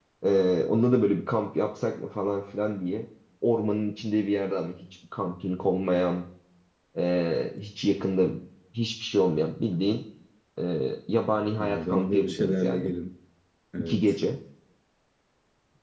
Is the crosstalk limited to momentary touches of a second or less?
No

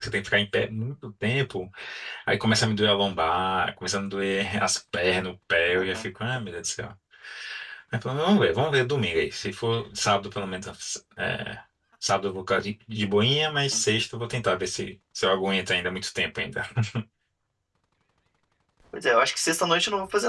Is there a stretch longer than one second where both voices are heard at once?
No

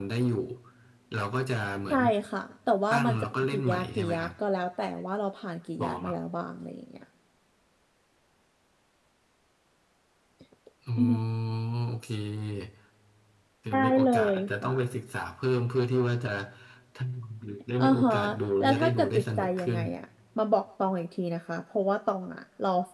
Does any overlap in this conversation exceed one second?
Yes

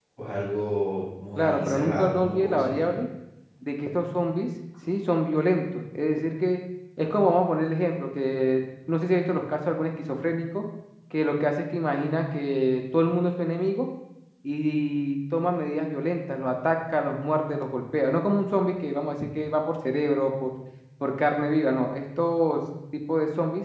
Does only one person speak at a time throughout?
No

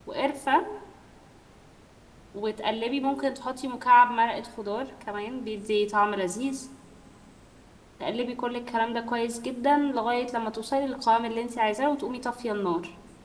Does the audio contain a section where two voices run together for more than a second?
No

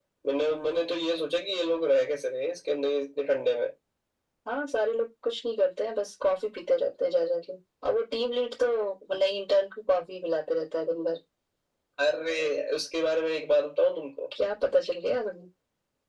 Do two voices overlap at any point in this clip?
No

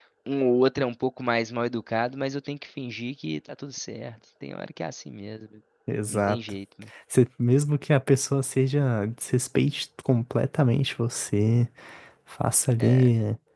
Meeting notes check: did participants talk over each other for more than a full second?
No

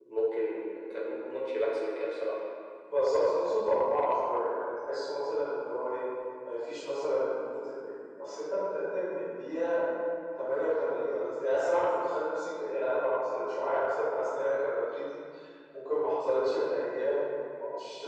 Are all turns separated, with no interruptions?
Yes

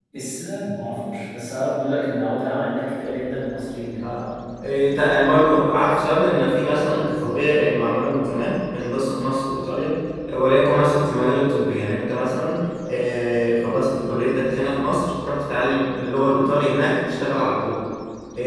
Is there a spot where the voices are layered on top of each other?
No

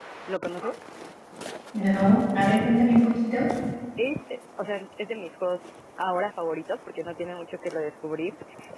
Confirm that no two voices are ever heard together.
Yes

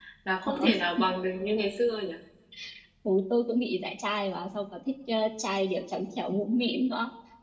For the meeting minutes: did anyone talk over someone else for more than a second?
No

